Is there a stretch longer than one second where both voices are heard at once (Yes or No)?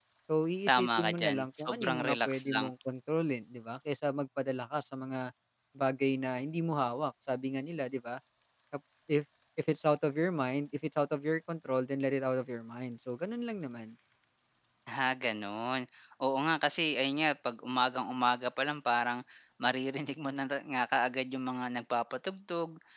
Yes